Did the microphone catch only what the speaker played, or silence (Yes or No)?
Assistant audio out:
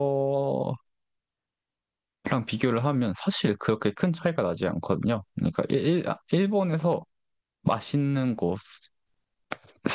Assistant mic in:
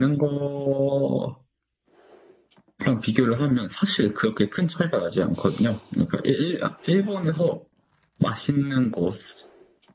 Yes